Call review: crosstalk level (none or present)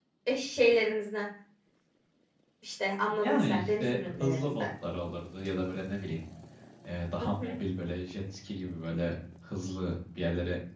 present